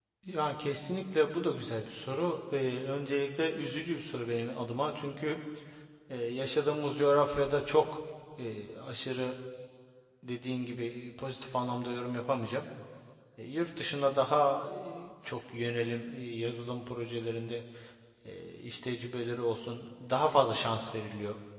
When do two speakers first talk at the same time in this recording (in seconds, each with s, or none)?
none